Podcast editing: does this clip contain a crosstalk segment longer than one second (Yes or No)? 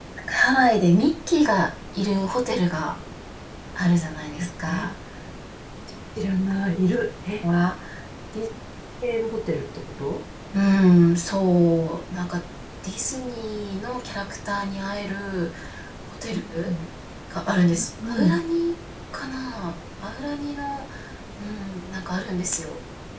No